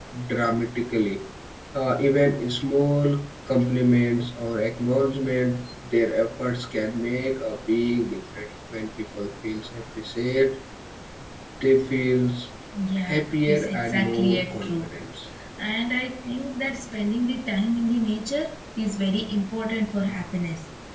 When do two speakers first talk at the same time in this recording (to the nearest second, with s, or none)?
13 s